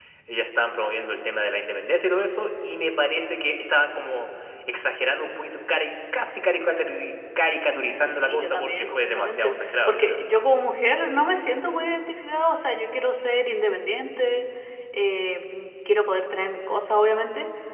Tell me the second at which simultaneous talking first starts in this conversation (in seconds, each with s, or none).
8.0 s